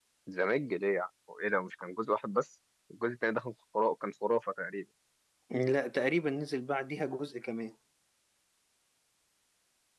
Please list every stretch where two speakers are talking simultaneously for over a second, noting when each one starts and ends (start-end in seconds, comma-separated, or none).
none